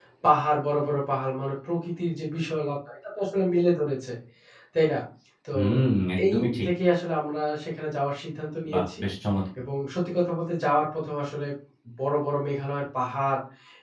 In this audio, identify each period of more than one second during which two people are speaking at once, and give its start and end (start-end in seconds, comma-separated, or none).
none